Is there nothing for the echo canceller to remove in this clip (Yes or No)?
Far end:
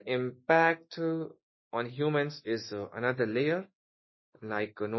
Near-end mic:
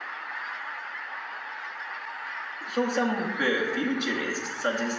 Yes